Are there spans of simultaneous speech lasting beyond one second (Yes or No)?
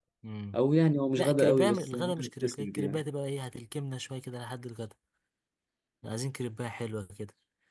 Yes